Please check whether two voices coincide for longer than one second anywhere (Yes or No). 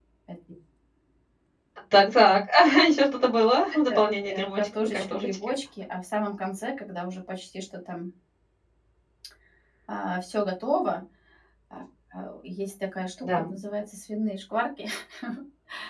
Yes